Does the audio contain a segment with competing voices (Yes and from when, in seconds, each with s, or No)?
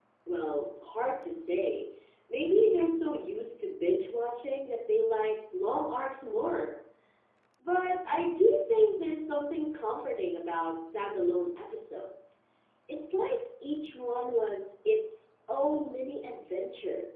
No